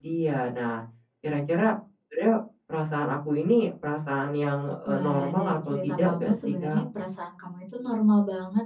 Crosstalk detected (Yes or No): Yes